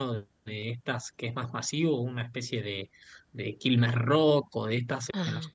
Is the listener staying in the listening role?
Yes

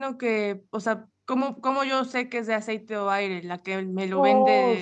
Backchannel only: No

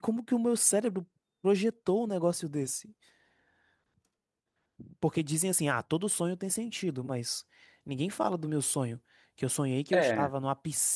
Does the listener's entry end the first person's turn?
No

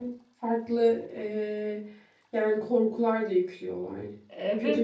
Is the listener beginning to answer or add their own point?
Yes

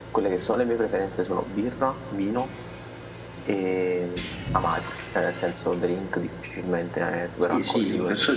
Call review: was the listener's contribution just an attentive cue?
No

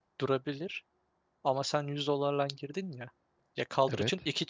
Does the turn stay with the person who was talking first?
Yes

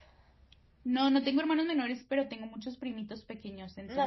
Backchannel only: No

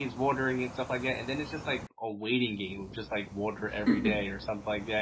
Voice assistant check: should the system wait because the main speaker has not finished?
Yes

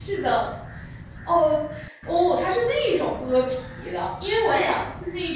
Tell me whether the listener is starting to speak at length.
No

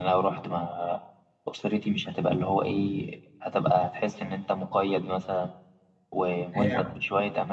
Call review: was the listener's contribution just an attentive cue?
Yes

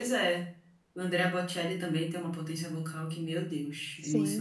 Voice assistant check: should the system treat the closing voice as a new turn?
Yes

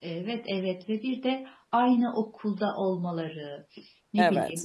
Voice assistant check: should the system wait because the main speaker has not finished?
Yes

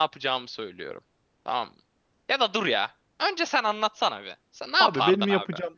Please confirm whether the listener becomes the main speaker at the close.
Yes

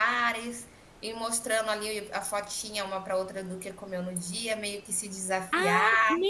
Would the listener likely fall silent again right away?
No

